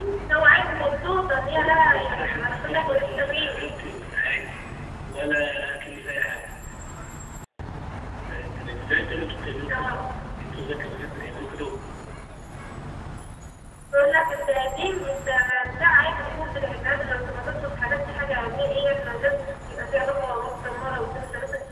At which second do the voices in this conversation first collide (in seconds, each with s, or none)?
1.5 s